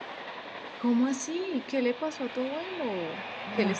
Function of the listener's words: listening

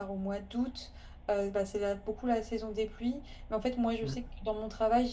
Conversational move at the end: listening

